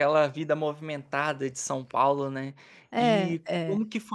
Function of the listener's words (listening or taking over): listening